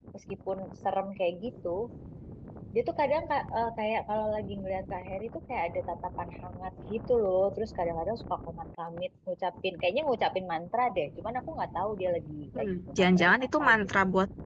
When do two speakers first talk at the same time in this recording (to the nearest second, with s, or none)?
13 s